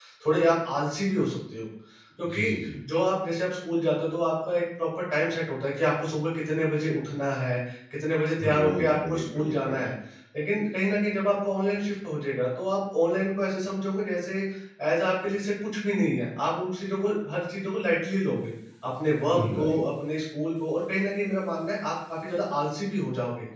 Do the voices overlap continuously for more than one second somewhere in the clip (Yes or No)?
Yes